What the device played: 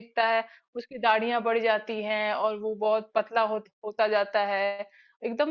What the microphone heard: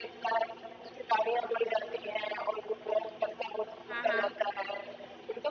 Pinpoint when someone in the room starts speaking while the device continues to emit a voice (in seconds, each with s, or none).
3.9 s